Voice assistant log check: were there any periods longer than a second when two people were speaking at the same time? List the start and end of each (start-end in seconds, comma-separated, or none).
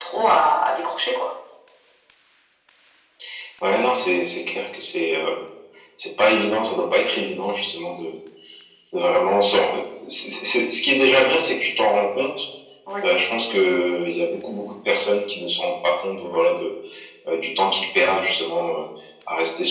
none